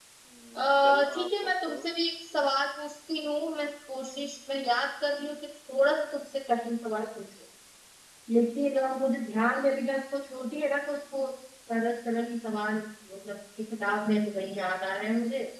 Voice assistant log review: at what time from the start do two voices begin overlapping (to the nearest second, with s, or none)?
1 s